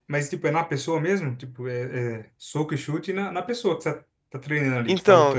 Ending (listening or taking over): taking over